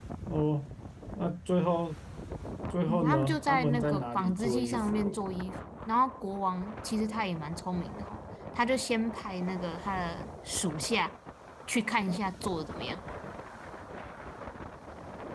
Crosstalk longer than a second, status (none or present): present